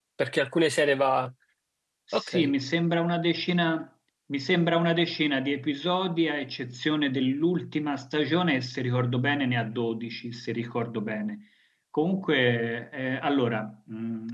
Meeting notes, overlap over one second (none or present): none